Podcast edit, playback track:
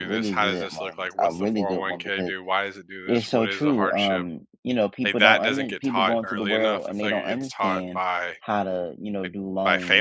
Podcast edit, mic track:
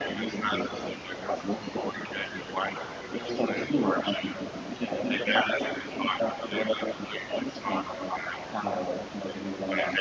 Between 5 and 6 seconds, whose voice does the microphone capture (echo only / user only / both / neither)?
echo only